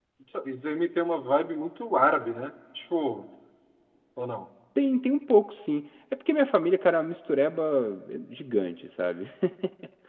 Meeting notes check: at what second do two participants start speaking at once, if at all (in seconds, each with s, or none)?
none